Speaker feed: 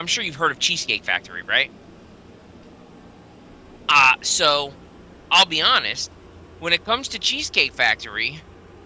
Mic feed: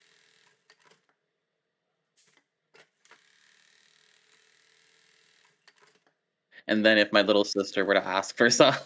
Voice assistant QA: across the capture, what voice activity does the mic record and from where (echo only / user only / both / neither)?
user only